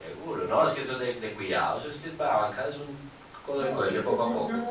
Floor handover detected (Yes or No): Yes